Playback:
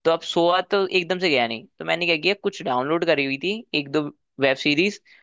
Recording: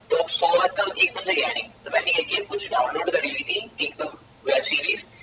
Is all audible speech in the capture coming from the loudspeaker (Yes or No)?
Yes